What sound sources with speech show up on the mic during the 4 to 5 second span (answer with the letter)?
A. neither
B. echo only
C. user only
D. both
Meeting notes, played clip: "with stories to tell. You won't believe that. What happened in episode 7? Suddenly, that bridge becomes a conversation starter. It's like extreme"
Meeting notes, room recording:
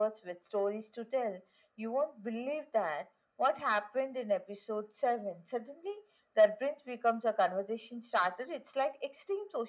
B